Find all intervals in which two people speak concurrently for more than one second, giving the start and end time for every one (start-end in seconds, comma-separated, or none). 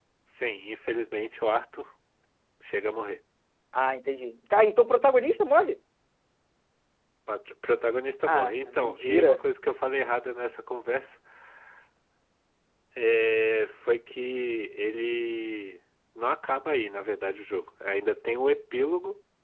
8.3-9.5